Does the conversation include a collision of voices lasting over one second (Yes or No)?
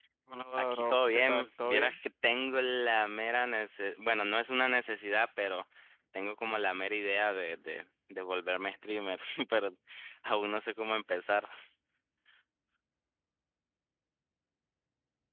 Yes